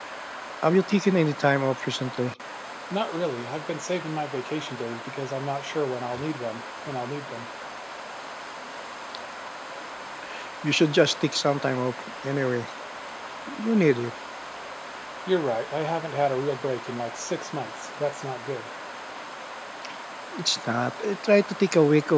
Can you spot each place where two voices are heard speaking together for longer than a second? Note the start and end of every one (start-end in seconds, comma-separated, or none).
none